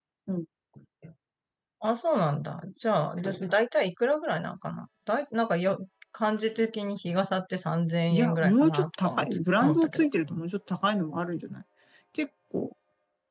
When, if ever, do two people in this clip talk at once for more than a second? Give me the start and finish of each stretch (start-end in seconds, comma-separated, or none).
8.1-10.1